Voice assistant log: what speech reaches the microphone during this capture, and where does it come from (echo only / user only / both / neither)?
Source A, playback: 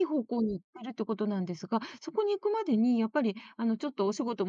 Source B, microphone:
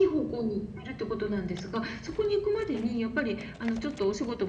echo only